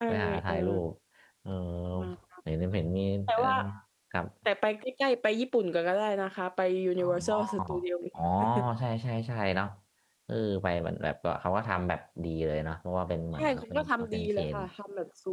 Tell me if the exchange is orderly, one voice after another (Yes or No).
No